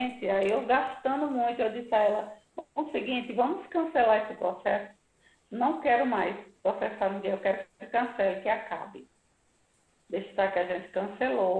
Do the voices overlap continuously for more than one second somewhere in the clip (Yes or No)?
No